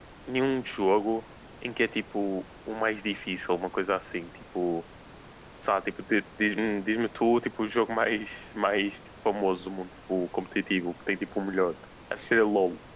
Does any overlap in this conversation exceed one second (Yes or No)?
No